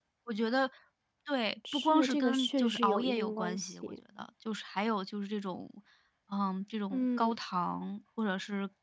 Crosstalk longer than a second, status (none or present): present